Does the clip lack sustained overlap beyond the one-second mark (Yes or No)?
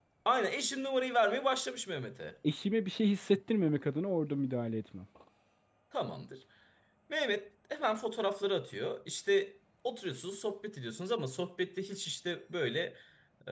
Yes